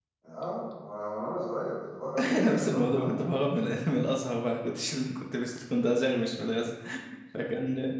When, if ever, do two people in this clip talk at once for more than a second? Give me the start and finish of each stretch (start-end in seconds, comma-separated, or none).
2.2-3.5